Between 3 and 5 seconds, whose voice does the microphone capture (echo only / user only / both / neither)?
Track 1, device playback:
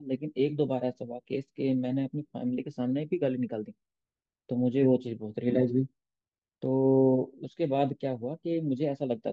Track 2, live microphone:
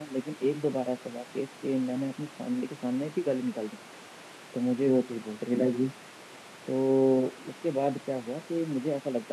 echo only